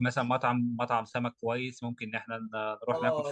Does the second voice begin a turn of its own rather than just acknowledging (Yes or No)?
Yes